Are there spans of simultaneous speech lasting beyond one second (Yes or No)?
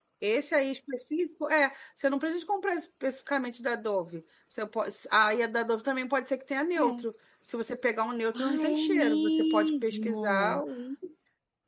Yes